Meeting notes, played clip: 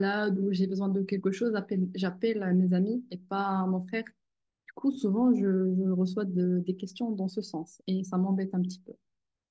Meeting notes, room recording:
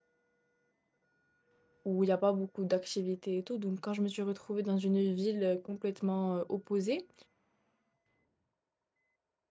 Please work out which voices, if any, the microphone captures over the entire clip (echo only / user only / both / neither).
user only